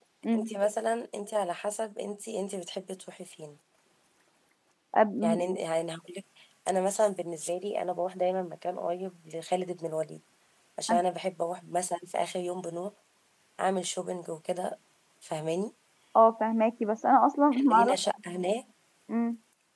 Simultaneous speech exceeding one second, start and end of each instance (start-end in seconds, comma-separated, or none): none